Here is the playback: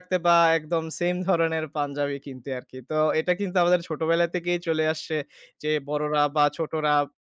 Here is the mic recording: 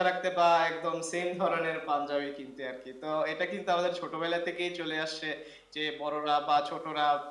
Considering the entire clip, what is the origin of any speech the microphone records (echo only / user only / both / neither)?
echo only